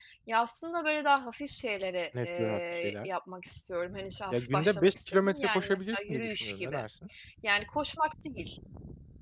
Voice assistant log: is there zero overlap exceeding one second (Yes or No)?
No